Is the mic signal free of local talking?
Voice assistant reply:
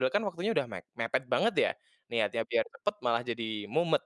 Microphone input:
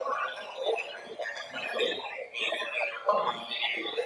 Yes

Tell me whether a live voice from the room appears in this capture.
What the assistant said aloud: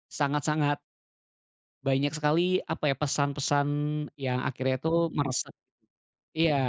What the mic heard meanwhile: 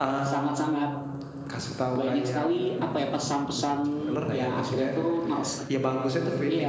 Yes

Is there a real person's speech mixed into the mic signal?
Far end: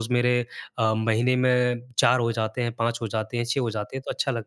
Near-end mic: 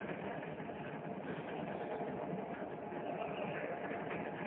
No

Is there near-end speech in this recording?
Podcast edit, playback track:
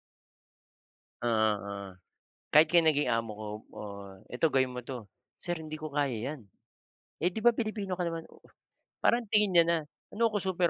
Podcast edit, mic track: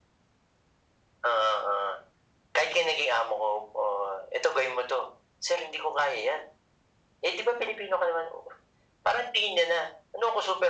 No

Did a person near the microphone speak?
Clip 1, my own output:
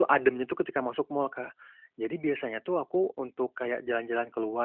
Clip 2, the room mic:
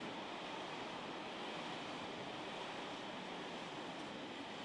No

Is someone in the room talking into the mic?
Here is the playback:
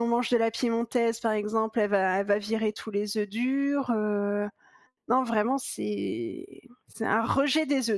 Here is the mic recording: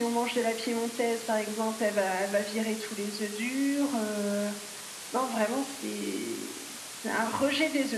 No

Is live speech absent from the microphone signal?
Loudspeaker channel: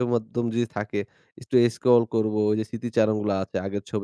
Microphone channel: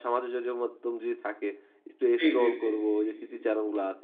No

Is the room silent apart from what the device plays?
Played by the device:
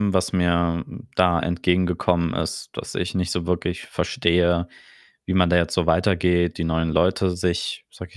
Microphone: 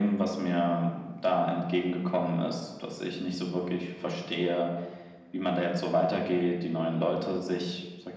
Yes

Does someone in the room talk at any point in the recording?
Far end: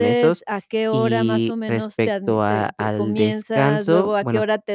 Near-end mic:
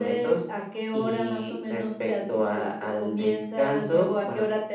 No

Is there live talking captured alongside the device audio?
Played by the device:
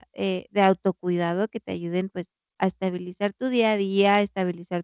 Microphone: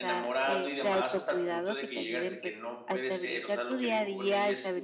Yes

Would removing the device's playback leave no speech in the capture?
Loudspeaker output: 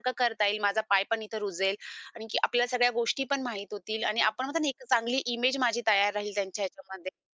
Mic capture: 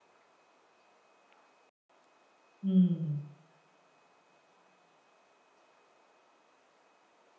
No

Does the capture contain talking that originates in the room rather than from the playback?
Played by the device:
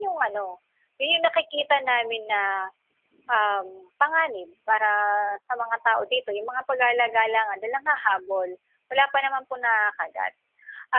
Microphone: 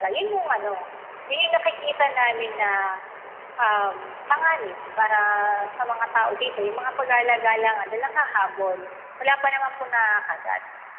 No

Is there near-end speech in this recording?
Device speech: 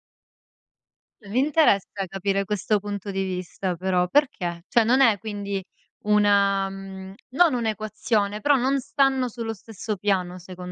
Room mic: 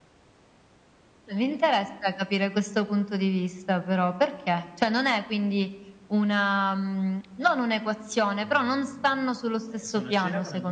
Yes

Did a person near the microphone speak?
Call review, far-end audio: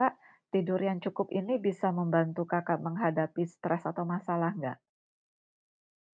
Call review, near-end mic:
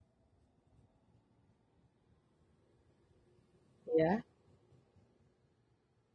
Yes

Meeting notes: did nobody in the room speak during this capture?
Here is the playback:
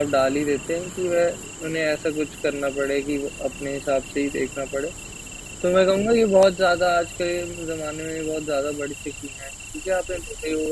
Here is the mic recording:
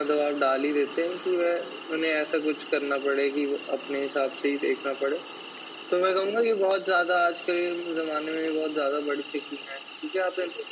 Yes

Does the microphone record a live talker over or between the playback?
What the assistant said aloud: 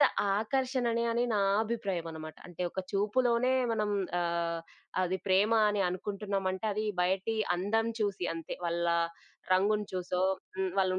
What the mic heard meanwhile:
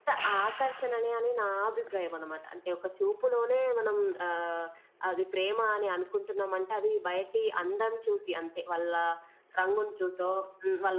No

